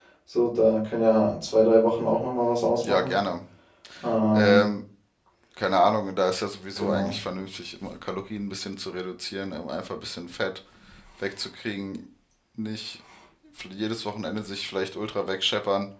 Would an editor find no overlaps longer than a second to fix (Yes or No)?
Yes